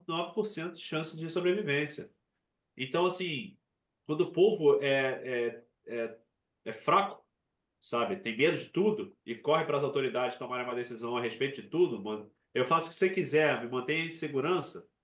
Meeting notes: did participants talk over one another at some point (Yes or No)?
No